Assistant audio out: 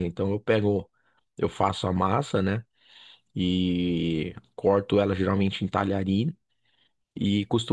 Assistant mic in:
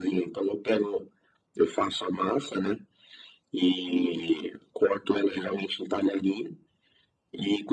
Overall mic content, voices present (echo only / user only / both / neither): echo only